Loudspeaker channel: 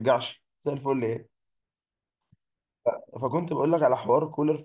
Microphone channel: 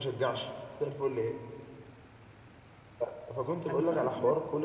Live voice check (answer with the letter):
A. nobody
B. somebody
B